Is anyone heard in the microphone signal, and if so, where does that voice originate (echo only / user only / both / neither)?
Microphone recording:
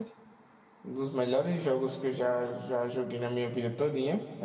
user only